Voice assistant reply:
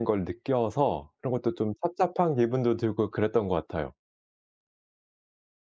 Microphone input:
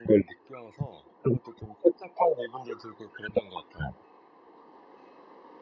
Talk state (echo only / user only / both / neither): echo only